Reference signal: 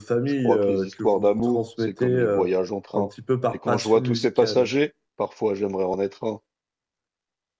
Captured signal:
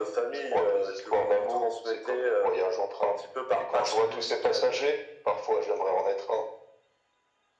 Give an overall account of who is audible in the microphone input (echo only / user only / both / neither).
echo only